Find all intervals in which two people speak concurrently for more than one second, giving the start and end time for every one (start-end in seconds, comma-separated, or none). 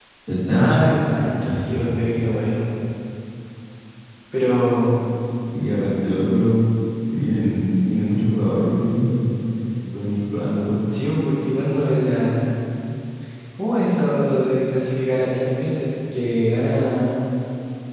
none